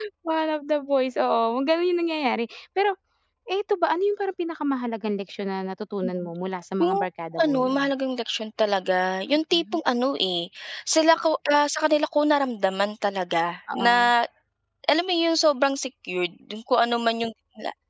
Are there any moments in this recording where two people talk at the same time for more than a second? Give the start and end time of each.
none

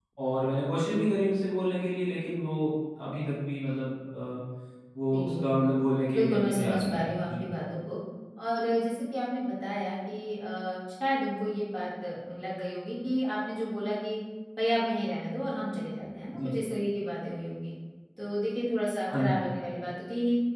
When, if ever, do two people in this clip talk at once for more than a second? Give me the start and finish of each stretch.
6.1-7.5

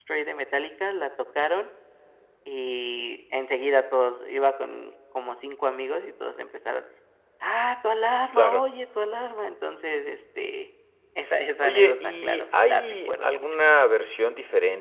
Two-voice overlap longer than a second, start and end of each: 11.6-13.4

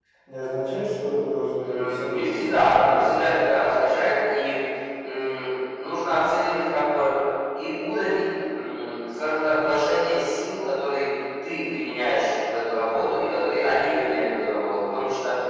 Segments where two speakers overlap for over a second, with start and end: 1.6-3.3

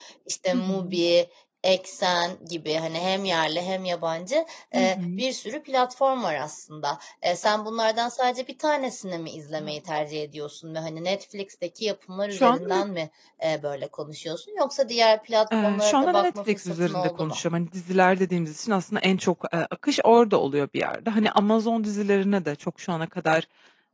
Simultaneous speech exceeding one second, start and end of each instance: 15.6-17.4

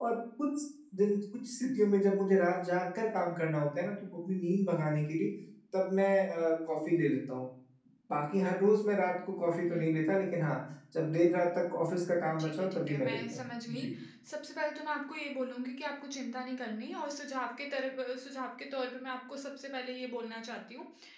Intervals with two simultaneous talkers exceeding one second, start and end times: 12.4-13.9

